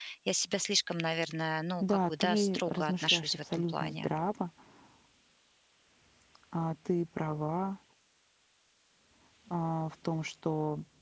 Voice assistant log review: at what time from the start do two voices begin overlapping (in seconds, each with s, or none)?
1.8 s